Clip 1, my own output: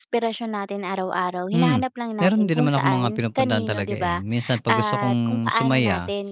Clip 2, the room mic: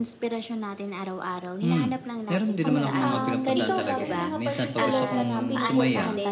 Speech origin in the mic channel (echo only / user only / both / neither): both